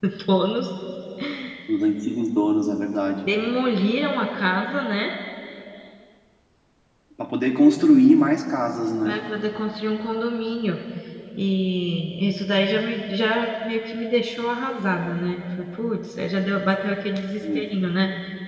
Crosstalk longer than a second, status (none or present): none